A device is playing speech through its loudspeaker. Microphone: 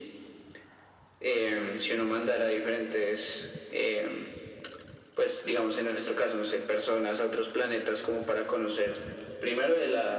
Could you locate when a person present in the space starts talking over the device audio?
none

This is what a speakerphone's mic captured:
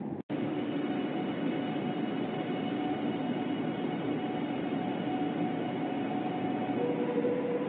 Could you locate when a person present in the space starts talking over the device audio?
none

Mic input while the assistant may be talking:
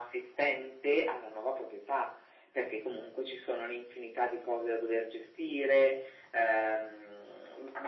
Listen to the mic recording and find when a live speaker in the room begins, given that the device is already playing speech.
none

